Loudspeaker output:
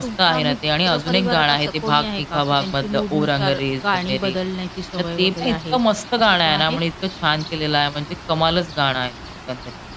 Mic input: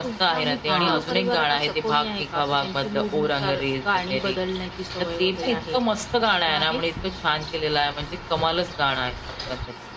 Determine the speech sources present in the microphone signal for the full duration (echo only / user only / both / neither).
both